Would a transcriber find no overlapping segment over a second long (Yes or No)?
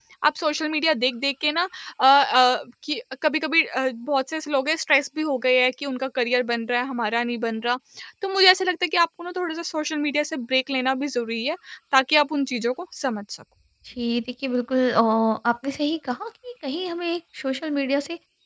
Yes